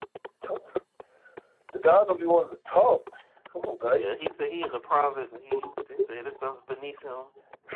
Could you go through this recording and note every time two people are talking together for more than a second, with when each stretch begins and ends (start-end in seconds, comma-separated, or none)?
none